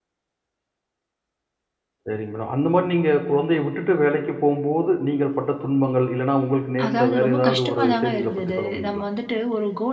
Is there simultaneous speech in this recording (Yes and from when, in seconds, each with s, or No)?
Yes, from 6.8 s